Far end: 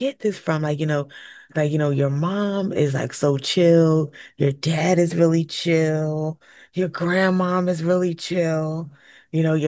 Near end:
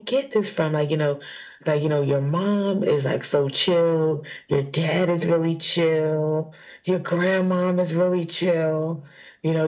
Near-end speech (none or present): none